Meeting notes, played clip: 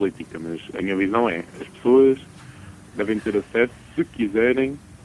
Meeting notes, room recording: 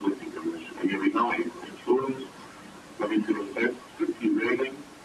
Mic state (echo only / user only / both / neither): echo only